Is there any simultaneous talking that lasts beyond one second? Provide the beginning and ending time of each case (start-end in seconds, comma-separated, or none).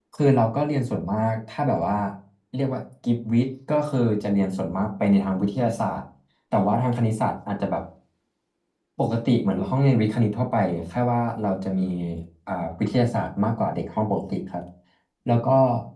none